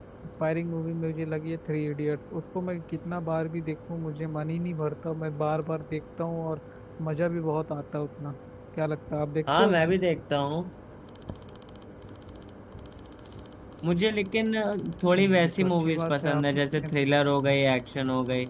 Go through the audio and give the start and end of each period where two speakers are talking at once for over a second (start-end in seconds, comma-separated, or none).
15.2-16.9